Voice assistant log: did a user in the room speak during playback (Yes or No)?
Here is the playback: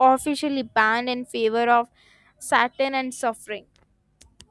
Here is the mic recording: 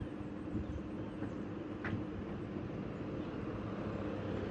No